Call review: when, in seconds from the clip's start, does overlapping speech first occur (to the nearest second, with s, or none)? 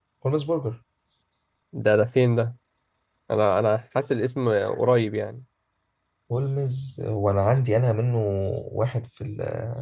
none